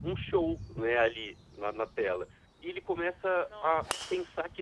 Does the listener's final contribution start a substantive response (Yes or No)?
No